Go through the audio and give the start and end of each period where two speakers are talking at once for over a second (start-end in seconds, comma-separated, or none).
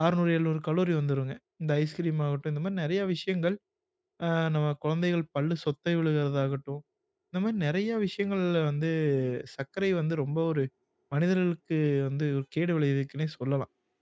none